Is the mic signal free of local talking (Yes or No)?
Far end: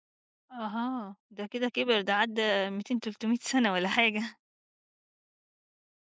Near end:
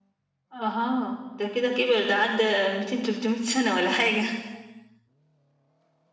Yes